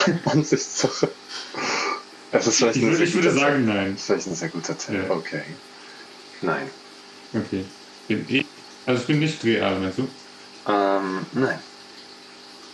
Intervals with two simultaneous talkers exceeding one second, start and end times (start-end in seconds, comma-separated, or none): 2.3-3.6